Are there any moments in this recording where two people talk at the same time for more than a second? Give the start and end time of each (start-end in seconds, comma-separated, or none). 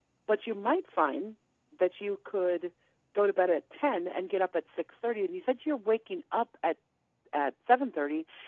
none